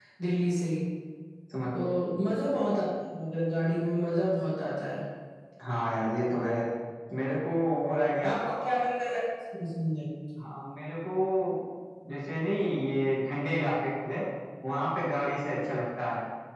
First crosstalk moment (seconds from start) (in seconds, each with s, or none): none